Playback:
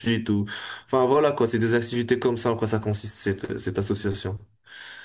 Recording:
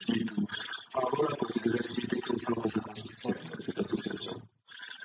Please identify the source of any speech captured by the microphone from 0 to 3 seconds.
echo only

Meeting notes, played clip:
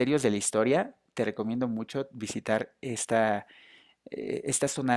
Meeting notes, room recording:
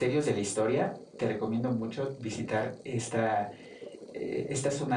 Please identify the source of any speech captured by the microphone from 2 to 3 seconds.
echo only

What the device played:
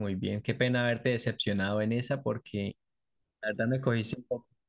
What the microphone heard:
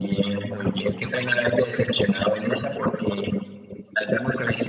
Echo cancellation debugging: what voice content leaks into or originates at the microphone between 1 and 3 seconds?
echo only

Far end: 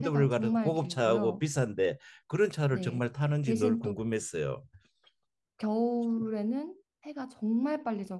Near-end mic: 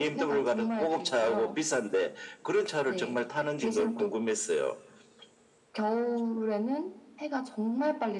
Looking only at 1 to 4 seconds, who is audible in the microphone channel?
echo only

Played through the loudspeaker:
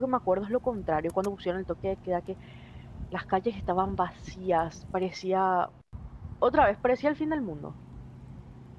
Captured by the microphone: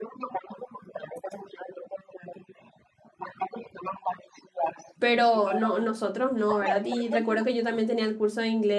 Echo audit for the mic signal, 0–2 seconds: echo only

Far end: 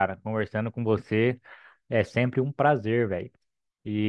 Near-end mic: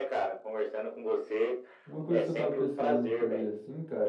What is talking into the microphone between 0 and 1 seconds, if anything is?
echo only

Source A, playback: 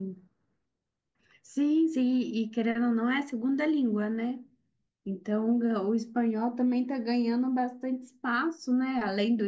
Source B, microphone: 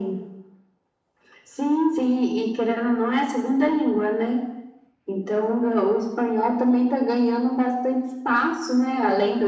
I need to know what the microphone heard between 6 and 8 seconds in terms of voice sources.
echo only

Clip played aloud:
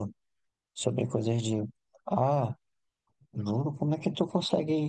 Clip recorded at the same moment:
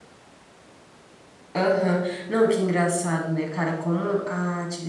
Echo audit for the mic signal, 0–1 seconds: neither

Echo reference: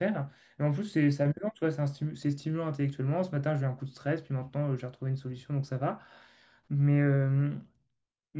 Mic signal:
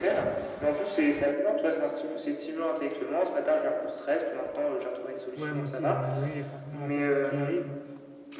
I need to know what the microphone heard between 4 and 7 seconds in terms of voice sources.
both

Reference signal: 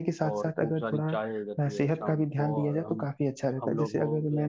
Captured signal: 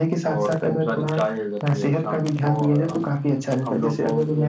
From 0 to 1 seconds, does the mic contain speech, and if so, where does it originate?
echo only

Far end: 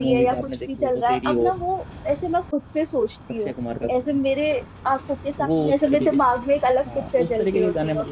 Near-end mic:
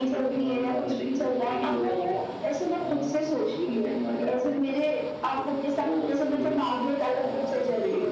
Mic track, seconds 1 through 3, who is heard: both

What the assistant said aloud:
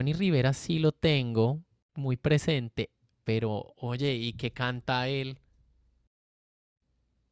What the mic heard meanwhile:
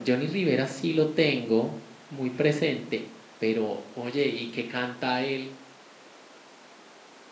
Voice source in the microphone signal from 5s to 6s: echo only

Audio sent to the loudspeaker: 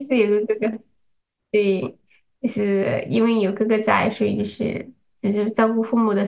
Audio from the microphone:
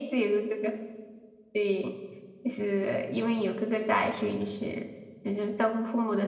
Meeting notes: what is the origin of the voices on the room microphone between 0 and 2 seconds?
echo only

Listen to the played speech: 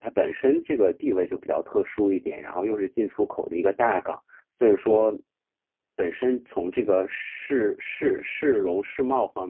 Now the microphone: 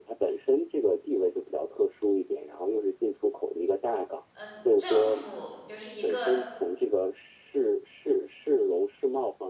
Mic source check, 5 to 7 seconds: both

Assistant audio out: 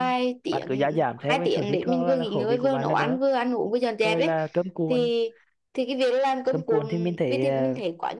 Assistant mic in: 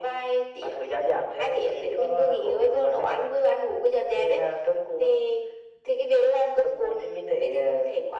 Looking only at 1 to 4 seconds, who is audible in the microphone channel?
echo only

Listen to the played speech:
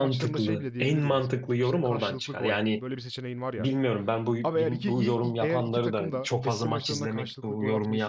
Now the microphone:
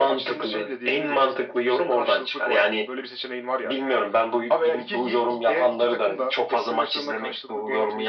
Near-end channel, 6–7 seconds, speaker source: echo only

